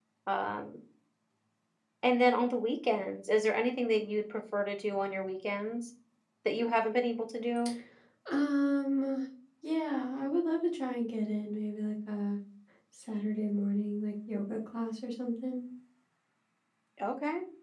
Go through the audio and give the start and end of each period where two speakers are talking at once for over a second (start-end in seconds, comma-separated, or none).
none